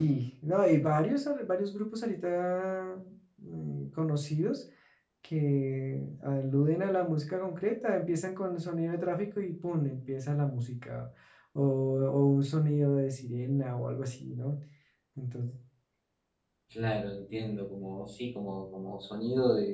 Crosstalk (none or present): none